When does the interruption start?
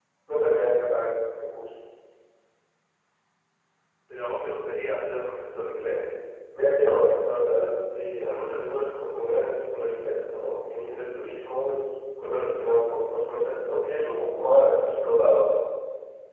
none

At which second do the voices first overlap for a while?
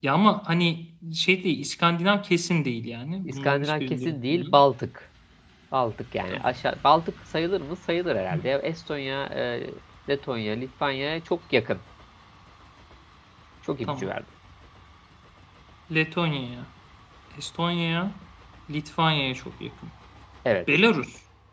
3.2 s

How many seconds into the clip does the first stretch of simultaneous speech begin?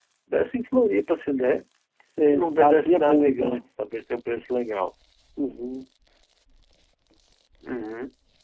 2.2 s

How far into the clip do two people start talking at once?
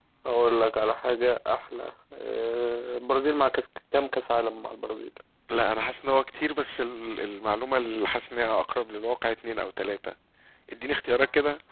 none

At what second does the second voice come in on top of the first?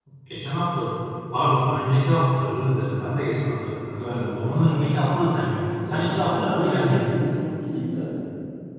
4.0 s

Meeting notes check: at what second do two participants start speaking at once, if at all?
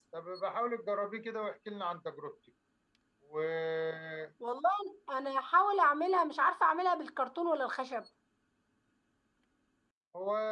none

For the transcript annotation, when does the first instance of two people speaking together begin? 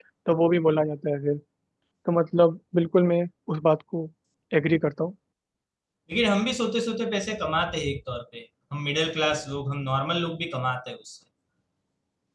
none

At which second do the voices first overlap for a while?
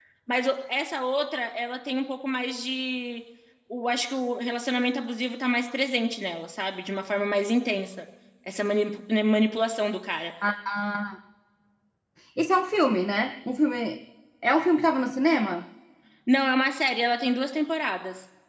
none

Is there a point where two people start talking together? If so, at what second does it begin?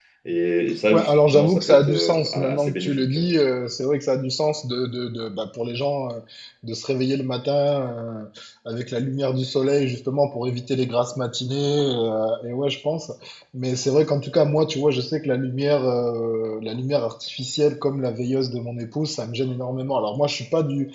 0.9 s

